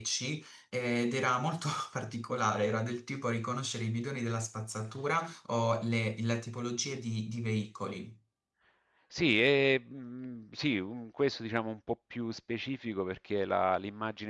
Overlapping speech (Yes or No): No